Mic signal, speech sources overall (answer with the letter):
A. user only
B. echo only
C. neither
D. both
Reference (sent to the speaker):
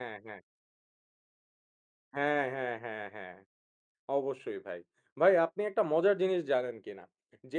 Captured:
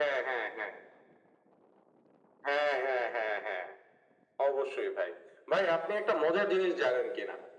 B